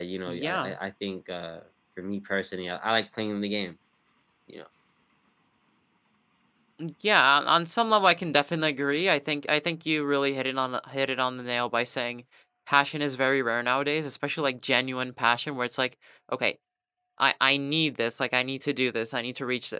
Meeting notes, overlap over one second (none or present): none